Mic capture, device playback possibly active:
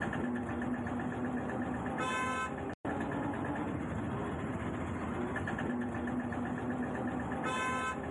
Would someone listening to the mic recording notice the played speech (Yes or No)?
No